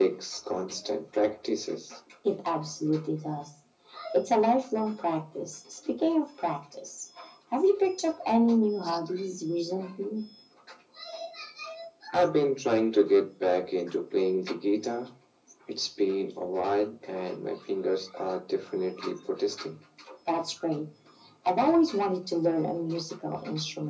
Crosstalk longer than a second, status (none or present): none